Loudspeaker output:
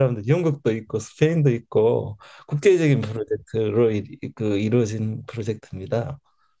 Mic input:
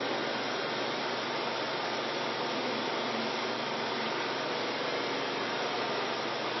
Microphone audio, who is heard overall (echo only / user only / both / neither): neither